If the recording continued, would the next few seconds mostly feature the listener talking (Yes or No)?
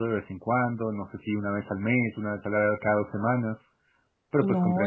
Yes